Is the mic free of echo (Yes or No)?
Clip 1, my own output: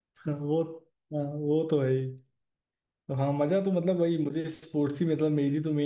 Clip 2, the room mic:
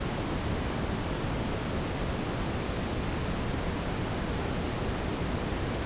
Yes